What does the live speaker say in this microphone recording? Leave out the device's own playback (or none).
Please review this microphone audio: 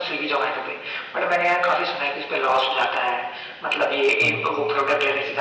हाँ